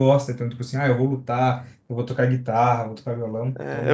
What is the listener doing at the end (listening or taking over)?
taking over